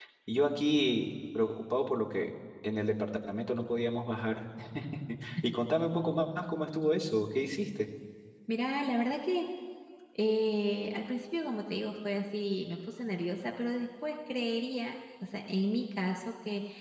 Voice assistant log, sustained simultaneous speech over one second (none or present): none